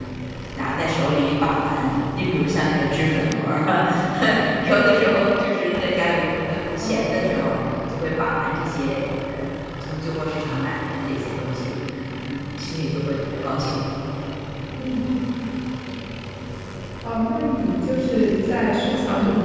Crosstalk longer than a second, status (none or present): none